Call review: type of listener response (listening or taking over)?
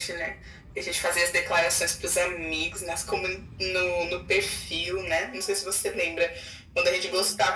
listening